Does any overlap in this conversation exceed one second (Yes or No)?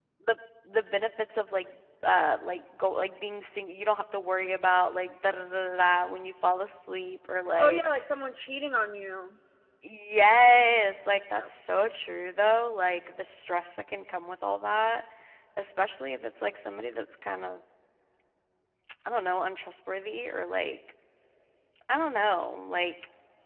No